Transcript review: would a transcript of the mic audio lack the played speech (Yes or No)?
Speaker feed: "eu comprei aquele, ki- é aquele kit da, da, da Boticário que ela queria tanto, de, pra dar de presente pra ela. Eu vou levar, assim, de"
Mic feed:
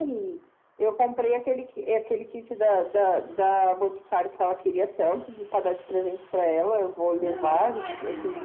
No